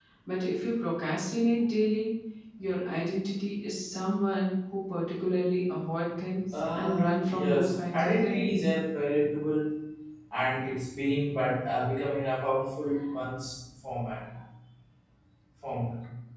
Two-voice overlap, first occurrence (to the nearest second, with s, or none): 7 s